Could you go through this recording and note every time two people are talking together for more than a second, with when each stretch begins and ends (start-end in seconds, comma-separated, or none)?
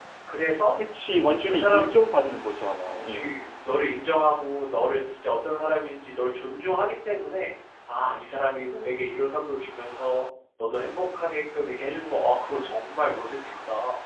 none